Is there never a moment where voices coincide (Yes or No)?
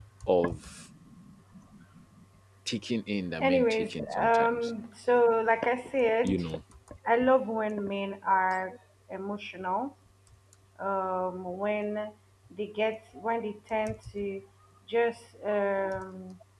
No